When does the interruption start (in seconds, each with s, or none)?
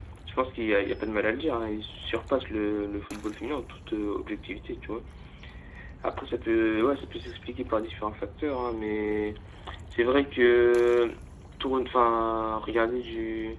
none